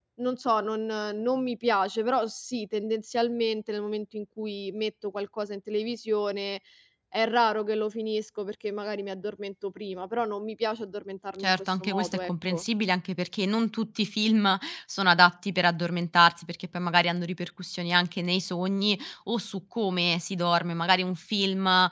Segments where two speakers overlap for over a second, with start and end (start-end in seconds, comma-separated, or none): 11.4-12.6